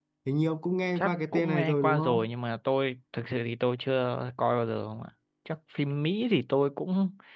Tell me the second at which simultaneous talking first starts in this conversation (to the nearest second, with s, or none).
1 s